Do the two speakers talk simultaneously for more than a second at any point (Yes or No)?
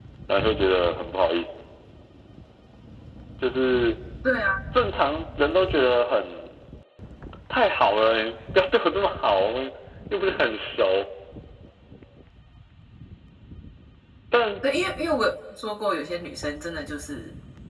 No